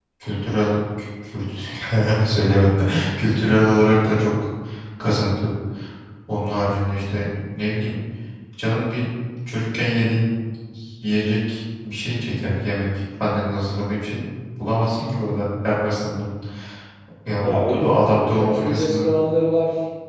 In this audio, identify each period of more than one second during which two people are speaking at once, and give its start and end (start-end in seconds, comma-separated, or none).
17.4-19.1